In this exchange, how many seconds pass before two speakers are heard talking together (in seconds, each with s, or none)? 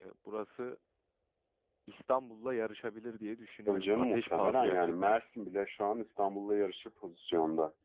3.7 s